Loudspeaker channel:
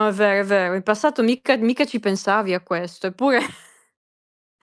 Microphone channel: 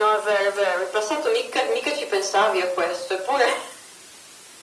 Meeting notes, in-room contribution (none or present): none